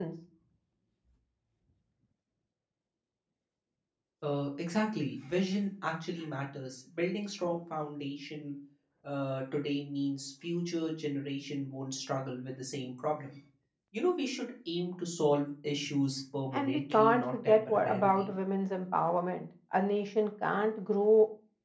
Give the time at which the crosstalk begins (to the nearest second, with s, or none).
17 s